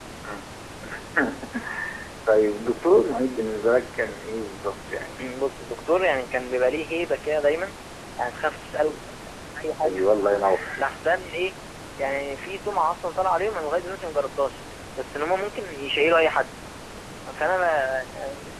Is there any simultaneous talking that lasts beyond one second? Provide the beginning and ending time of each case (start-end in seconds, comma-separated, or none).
none